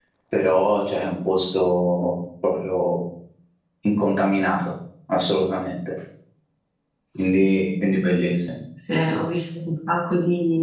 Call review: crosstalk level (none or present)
none